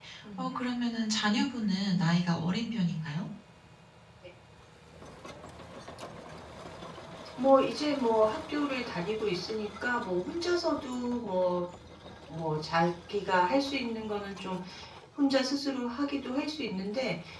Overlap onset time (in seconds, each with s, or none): none